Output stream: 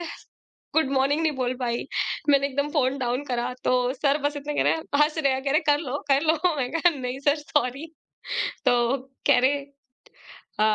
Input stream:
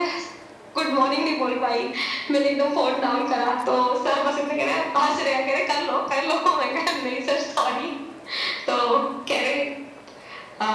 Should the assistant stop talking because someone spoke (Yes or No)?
No